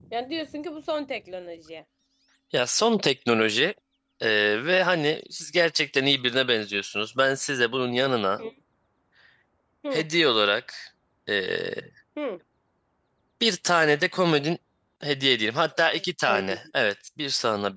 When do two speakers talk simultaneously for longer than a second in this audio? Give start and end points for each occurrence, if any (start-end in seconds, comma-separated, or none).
none